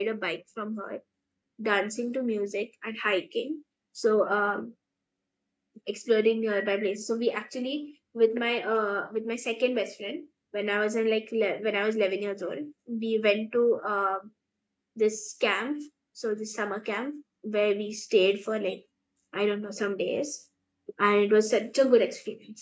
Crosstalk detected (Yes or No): No